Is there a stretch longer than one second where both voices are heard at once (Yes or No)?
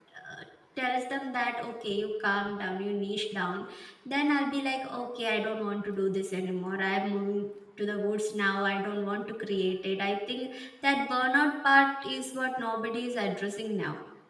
No